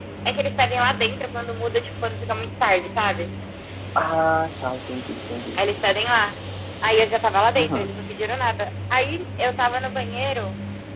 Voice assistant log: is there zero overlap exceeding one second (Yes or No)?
Yes